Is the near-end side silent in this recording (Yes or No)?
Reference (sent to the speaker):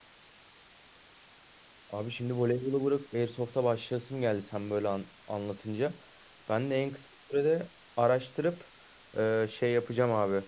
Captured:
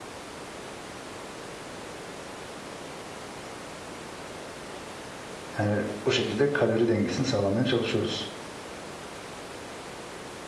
No